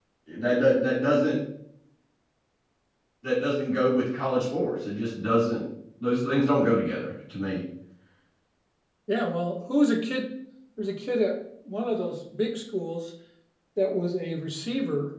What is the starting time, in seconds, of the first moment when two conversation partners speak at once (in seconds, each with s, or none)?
none